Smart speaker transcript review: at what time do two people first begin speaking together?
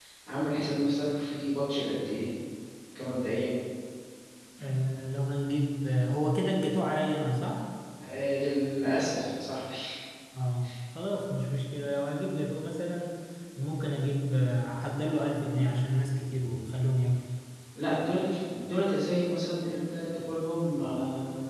none

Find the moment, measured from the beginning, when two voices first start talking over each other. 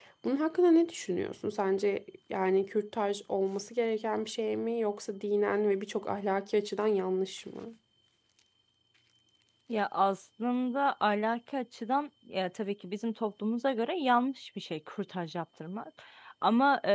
none

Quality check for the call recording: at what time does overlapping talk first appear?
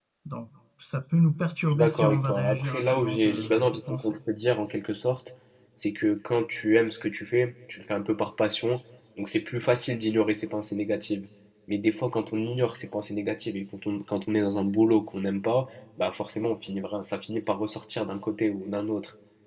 1.7 s

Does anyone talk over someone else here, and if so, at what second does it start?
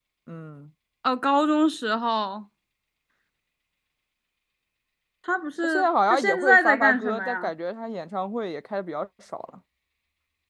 5.6 s

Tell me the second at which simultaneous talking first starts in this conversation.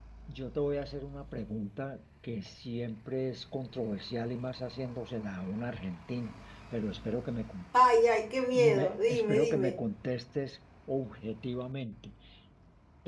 8.5 s

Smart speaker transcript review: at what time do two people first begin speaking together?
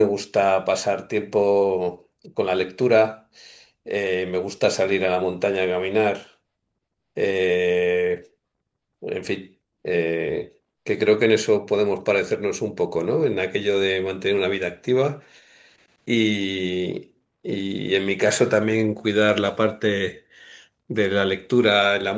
none

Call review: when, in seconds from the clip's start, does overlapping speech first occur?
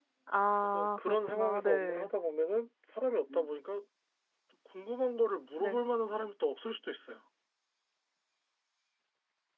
0.6 s

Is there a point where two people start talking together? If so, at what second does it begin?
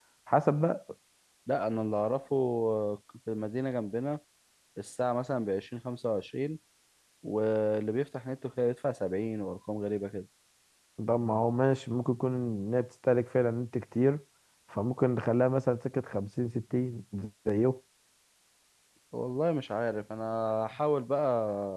none

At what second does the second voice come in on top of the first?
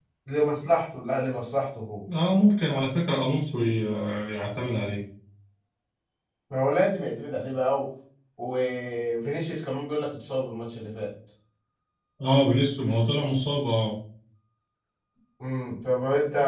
none

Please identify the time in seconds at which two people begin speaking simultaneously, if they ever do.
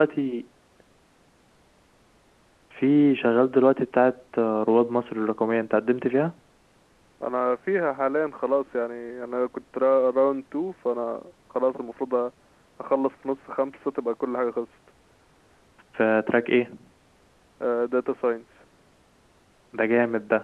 none

